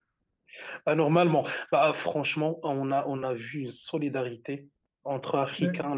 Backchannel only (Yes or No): Yes